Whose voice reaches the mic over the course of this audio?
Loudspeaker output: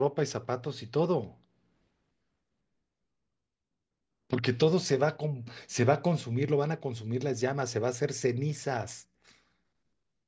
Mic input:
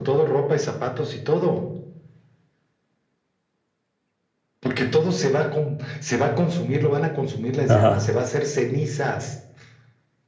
both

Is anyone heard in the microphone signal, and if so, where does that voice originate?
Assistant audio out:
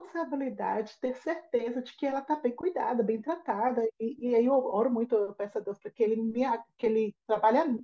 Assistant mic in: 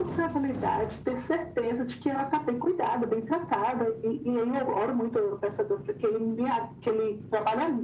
echo only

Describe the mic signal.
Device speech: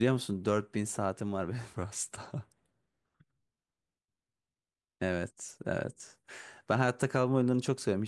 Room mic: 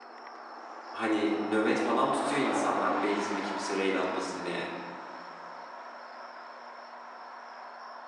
user only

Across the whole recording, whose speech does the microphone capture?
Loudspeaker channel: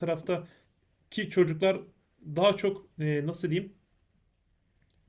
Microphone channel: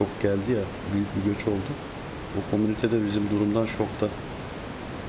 user only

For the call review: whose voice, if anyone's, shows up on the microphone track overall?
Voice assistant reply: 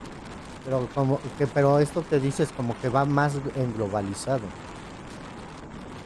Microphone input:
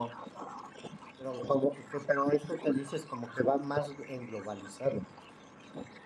echo only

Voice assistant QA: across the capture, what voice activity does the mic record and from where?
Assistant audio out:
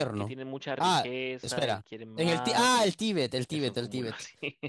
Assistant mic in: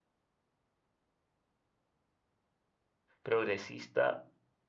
user only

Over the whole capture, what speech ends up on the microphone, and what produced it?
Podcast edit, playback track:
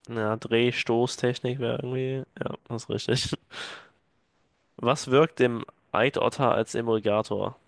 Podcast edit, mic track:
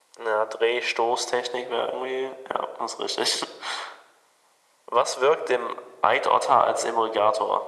echo only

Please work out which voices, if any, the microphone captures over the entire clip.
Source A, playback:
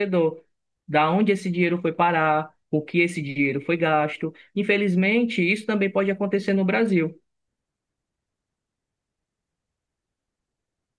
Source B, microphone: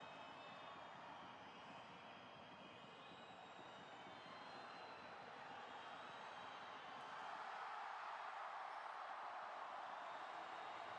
neither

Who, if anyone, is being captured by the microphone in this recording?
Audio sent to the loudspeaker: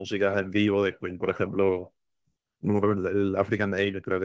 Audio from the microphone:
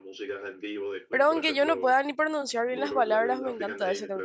both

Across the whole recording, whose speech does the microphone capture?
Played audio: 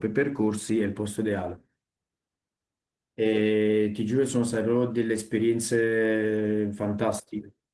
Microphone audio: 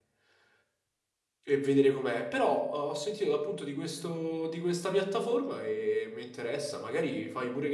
user only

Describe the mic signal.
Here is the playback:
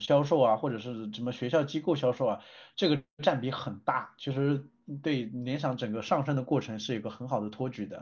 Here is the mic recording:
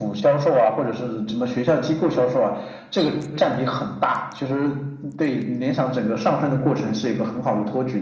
echo only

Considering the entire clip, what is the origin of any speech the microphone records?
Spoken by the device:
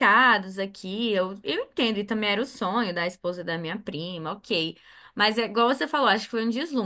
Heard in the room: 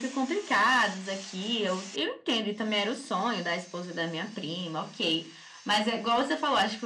echo only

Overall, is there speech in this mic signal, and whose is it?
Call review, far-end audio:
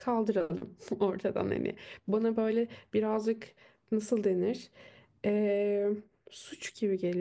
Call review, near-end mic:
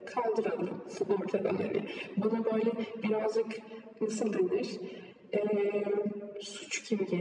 echo only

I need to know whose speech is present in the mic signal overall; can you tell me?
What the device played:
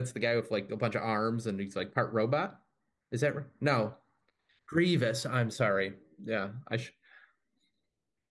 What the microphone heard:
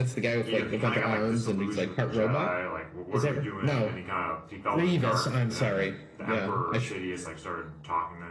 both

